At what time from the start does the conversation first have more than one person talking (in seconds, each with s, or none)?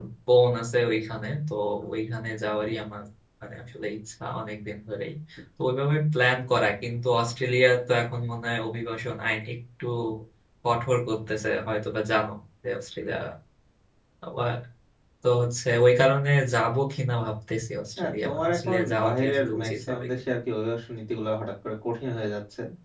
18.0 s